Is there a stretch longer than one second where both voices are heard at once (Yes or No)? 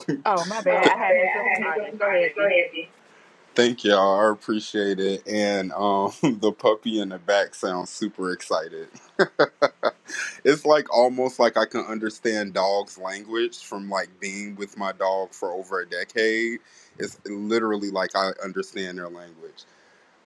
Yes